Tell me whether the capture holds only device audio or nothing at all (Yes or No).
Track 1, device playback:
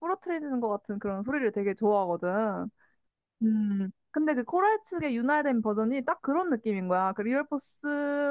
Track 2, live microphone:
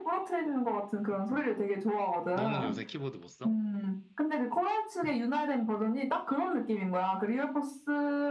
No